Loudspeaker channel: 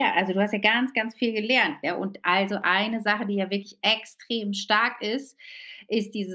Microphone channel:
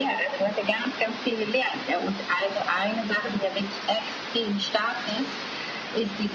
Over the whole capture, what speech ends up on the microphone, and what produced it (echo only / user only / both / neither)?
echo only